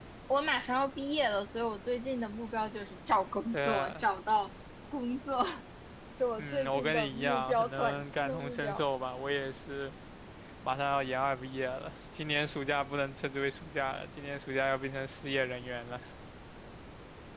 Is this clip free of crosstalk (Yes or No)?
No